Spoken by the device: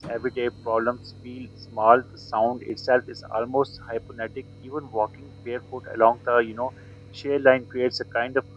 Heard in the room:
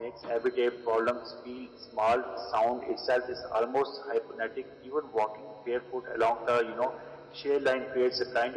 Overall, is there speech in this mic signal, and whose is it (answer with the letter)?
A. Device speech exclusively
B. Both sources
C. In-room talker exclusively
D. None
A